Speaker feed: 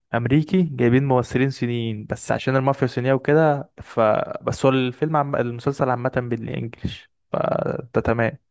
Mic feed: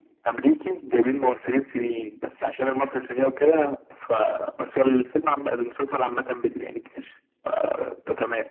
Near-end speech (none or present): none